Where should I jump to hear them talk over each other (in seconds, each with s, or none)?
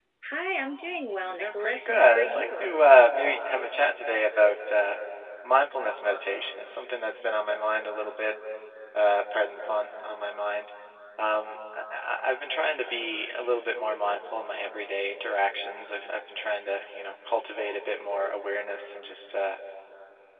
1.3 s